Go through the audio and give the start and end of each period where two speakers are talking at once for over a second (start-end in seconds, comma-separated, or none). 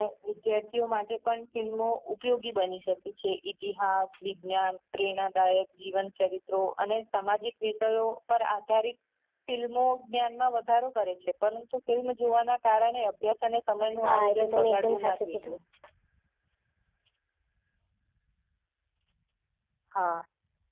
14.0-15.5